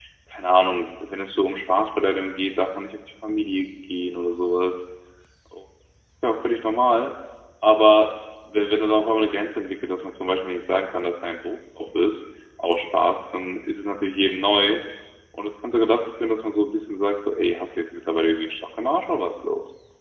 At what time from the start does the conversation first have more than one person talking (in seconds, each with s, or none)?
none